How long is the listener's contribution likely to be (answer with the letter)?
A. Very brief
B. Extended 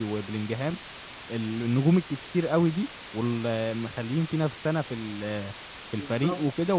A